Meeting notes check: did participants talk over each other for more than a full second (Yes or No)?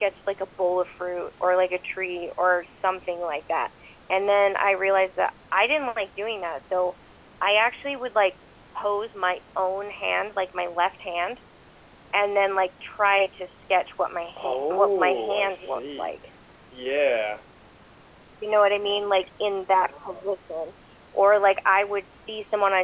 Yes